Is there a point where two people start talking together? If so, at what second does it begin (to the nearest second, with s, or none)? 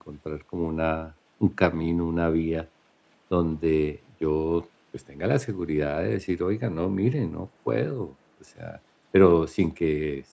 none